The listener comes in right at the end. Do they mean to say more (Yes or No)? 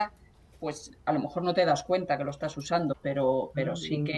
No